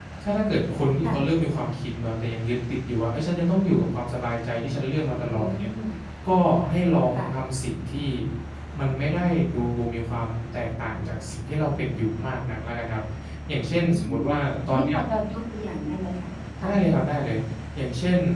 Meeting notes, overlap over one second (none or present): none